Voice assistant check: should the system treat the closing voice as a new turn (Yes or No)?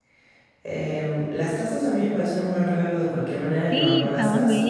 Yes